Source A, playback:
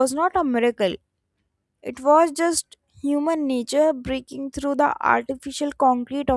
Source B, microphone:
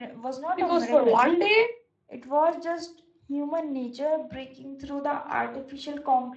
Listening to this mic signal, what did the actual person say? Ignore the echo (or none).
because for one day